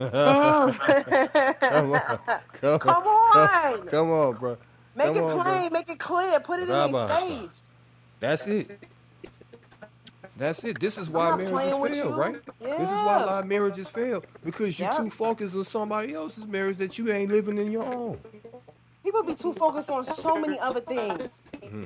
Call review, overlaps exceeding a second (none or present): present